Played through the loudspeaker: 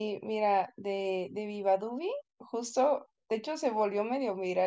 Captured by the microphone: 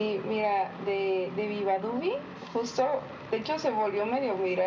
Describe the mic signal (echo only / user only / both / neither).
echo only